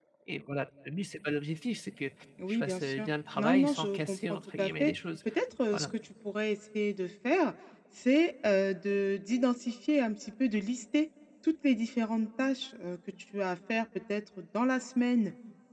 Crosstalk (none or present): present